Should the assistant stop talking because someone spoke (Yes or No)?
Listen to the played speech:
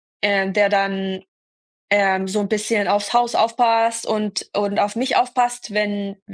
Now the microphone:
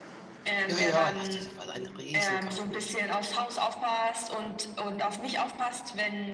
Yes